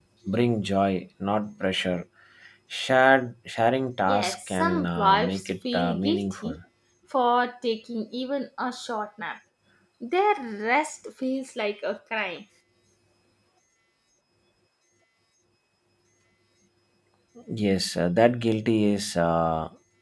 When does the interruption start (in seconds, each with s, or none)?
4.1 s